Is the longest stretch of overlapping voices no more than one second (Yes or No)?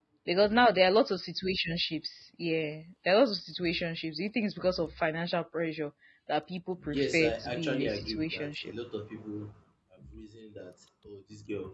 No